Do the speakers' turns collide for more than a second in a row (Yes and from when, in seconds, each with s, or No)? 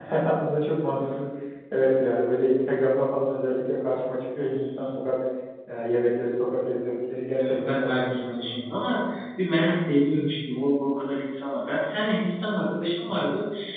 Yes, from 7.4 s